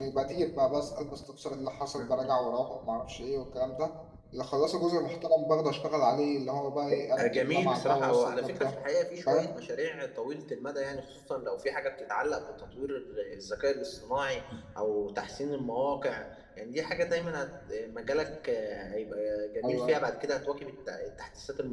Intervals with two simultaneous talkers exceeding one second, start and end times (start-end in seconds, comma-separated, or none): 7.2-8.8